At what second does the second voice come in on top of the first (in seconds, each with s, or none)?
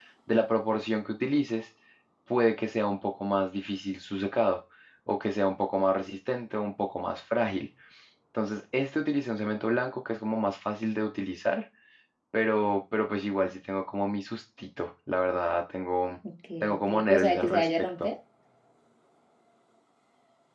16.8 s